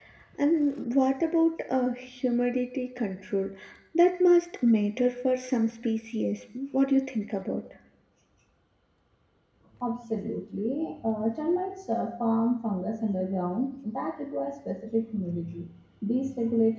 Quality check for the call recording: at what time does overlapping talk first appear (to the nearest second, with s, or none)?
none